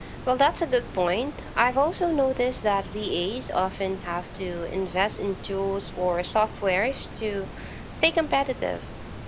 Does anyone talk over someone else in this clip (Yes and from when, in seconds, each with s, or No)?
No